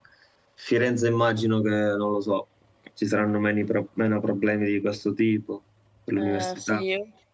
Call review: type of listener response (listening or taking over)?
taking over